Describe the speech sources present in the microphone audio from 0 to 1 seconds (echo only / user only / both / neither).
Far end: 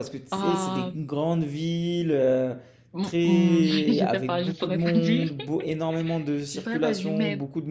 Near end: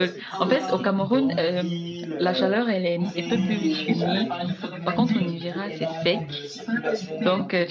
both